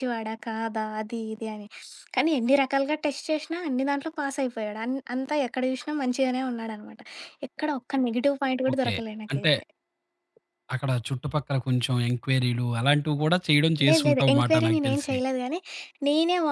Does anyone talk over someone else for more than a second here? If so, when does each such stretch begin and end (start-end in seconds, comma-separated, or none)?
13.9-15.2